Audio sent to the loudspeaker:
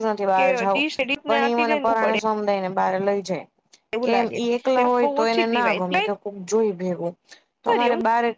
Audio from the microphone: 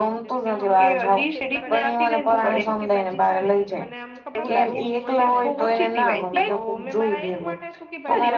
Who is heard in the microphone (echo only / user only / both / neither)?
both